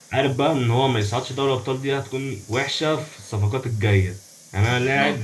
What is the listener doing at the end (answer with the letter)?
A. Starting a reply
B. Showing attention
B